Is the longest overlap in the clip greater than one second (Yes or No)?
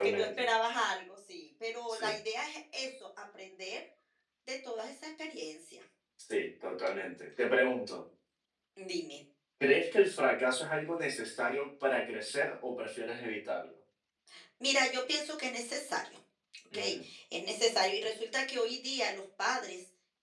No